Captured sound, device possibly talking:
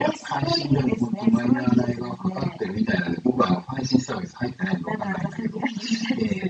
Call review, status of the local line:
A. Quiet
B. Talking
A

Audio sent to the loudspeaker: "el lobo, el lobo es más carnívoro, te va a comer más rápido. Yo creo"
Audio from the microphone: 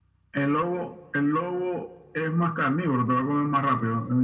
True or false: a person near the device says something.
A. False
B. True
A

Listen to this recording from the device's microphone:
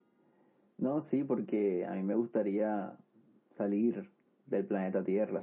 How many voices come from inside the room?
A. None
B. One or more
A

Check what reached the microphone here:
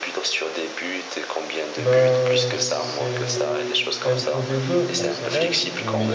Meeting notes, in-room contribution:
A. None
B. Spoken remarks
B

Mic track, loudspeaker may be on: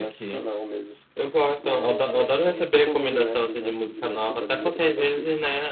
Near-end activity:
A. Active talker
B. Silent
A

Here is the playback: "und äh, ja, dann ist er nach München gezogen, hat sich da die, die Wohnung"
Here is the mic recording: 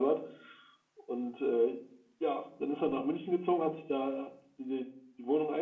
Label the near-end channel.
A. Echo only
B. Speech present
A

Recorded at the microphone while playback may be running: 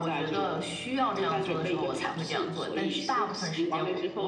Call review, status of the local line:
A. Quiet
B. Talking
A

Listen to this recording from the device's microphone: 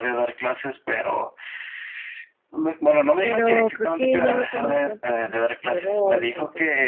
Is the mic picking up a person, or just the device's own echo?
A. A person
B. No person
A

